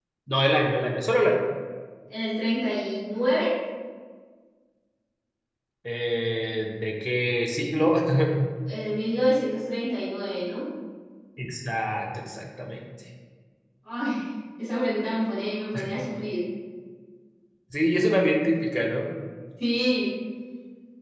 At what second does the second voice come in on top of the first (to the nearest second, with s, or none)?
none